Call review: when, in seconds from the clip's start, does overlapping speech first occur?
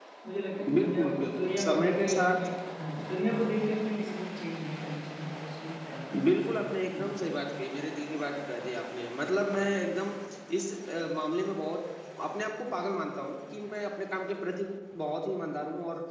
0.7 s

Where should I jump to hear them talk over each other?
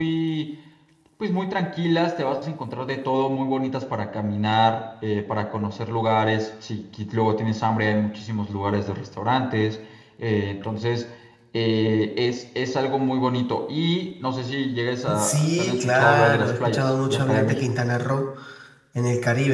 15.1 s

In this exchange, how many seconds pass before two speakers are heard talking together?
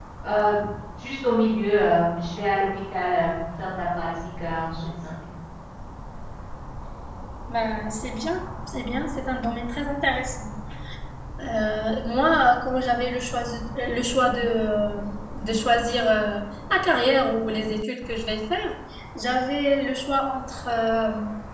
none

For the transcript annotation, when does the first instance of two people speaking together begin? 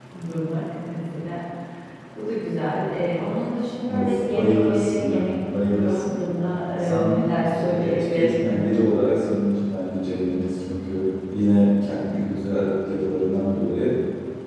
3.9 s

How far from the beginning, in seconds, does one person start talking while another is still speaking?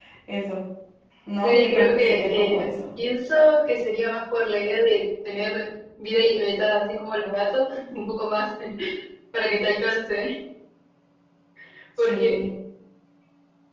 1.4 s

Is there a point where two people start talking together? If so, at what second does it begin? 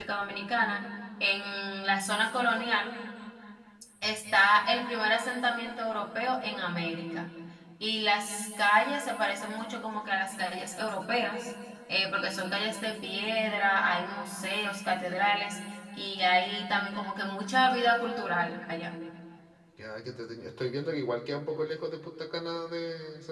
none

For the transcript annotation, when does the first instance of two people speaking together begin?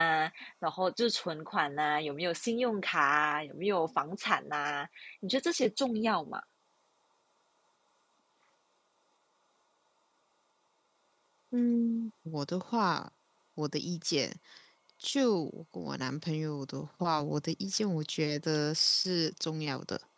none

